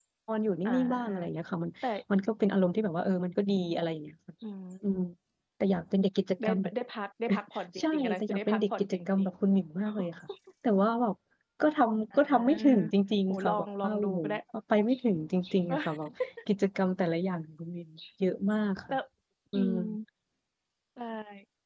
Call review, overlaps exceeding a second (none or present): present